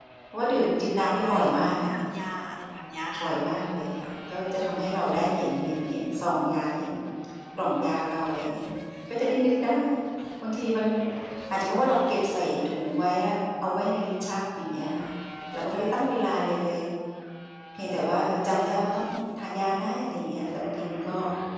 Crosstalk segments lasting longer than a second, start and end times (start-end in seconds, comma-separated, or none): 0.6-1.8